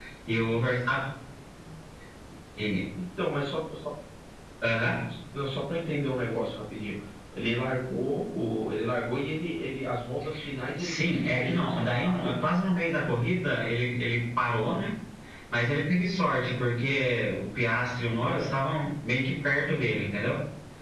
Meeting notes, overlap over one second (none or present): present